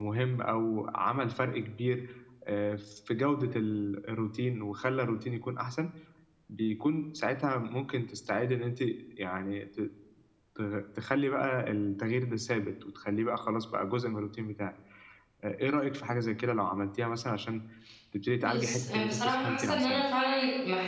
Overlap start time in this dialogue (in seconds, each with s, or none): 18.5 s